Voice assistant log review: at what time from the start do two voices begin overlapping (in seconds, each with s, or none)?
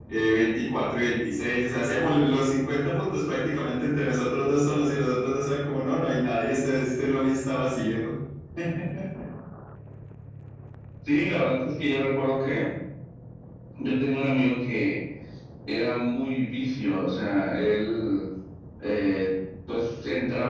none